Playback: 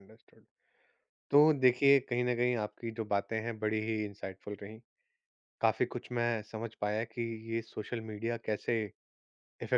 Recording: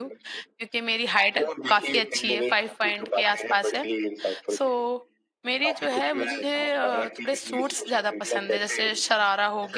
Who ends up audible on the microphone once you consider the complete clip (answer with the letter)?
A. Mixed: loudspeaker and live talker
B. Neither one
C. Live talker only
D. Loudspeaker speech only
A